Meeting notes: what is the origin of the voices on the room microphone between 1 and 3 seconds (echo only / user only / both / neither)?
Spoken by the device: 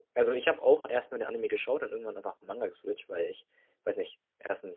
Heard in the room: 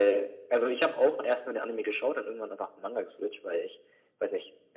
echo only